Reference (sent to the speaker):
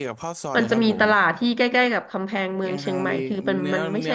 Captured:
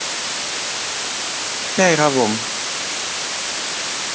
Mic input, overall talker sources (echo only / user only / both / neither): user only